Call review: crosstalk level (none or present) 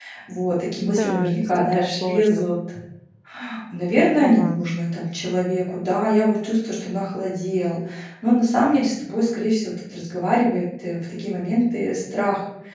present